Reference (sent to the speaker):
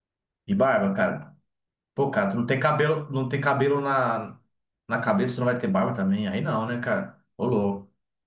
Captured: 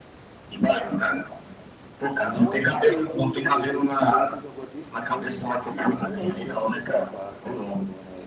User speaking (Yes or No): Yes